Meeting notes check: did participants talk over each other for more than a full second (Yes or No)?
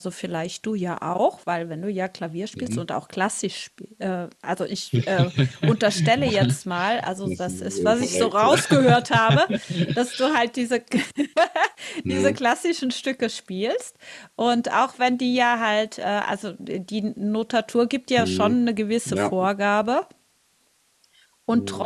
Yes